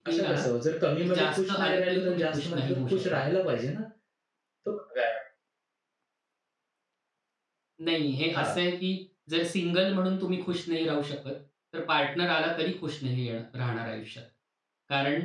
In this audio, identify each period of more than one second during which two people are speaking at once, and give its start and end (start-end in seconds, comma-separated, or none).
1.0-3.2